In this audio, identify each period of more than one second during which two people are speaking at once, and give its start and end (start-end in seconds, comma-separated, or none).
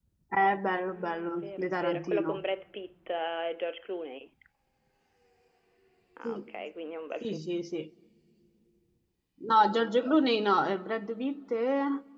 0.7-2.4